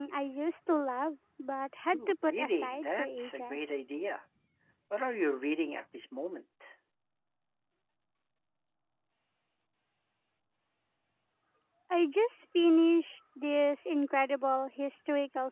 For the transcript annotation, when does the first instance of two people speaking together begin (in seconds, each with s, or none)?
1.9 s